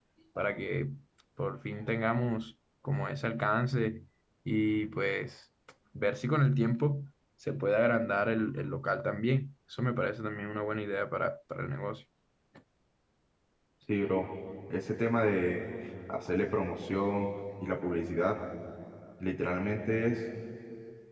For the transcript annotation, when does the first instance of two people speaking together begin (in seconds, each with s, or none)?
none